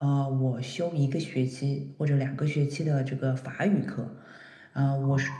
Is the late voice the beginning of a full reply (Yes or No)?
No